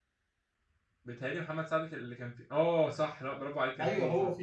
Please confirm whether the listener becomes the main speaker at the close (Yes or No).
Yes